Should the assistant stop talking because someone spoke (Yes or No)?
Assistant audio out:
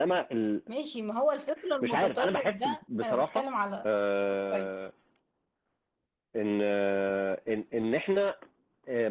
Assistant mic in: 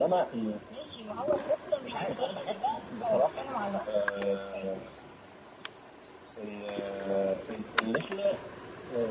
No